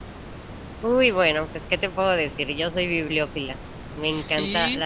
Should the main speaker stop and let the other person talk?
No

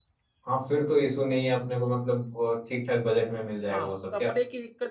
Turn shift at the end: Yes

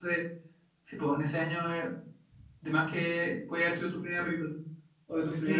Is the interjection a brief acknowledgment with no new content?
No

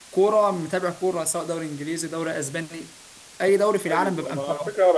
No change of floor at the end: No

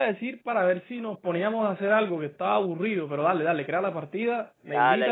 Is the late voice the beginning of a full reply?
Yes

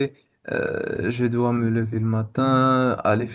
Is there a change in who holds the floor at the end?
No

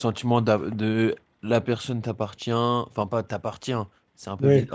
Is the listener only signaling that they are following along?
Yes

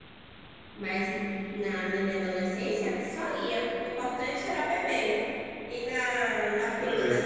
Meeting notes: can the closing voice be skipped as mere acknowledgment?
No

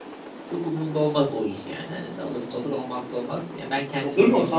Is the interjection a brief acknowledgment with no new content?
No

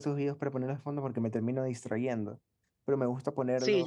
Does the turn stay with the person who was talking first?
No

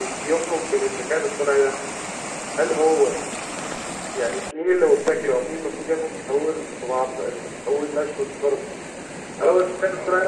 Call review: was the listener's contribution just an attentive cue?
Yes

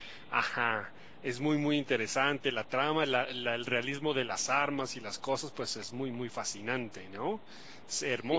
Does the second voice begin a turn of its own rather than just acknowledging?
Yes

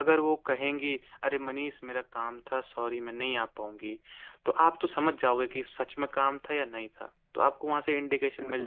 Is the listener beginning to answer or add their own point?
Yes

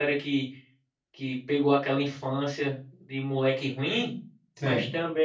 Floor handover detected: No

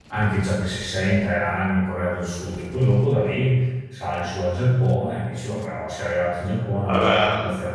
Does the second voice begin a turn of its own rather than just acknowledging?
No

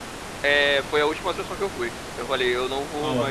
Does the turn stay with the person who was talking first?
No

